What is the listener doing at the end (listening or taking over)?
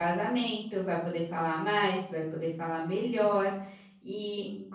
listening